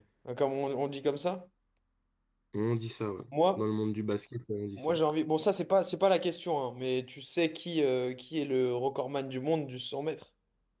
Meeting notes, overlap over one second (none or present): none